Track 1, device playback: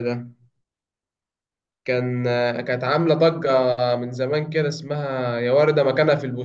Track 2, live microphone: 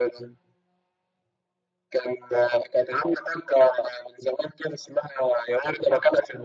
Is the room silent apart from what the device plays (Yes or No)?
Yes